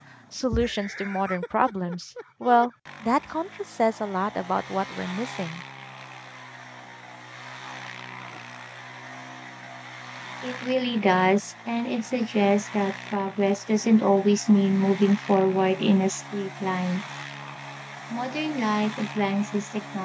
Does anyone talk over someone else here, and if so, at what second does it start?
none

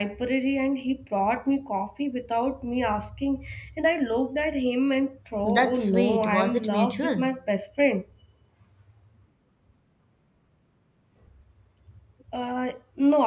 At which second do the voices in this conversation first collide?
5 s

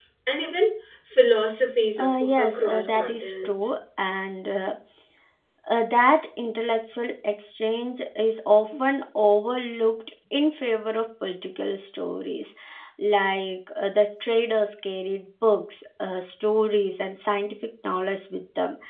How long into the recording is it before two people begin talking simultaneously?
2 s

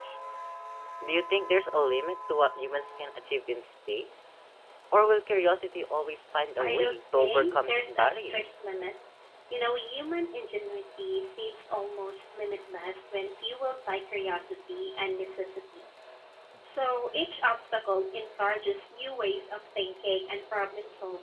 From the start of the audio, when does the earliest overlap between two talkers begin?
7 s

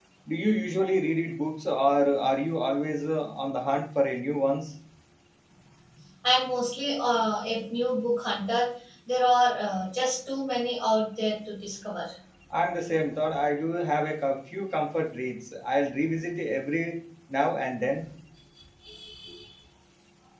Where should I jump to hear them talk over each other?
none

